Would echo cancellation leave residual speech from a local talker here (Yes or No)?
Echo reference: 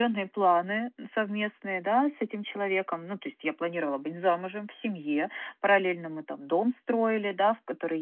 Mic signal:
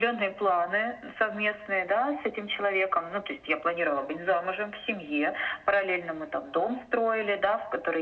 No